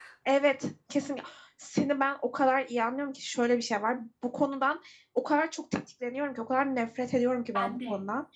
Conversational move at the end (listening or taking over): listening